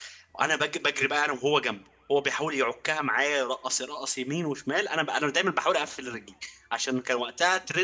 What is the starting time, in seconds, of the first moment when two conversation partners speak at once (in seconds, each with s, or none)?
none